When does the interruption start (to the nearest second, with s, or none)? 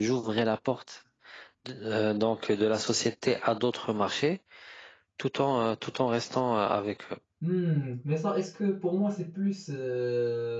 none